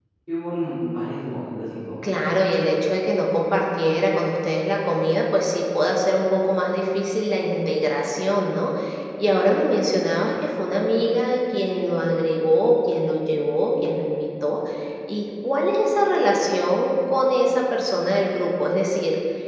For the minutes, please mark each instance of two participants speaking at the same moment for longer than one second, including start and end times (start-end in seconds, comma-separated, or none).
none